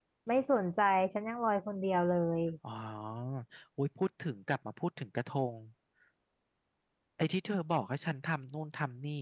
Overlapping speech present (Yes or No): No